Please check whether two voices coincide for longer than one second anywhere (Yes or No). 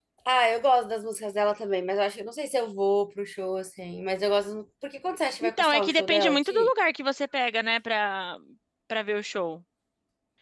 Yes